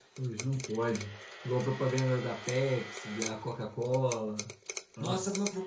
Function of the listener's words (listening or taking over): taking over